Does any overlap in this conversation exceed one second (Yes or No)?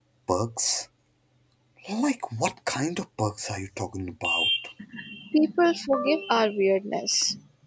No